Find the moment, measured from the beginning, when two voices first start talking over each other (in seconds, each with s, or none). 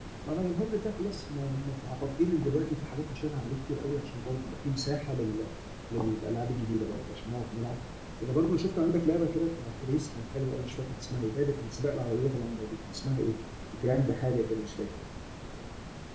none